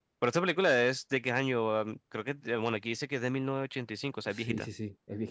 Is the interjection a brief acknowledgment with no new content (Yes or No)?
No